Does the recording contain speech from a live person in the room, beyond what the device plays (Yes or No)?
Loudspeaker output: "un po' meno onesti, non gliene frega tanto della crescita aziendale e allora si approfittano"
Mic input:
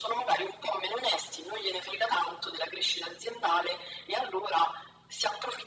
No